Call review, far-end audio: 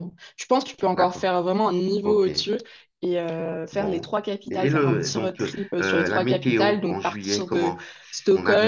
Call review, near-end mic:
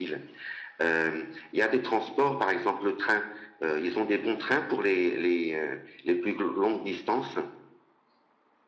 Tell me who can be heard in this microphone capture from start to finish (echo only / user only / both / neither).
user only